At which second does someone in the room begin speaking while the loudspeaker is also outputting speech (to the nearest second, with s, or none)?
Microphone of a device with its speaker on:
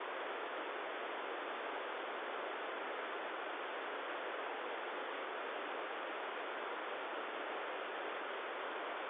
none